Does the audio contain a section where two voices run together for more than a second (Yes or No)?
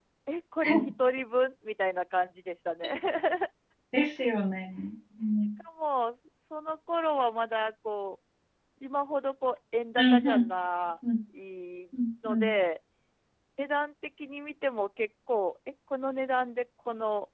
No